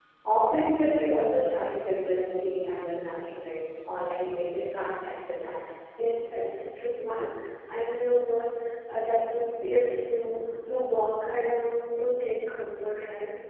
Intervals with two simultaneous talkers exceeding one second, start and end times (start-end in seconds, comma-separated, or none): none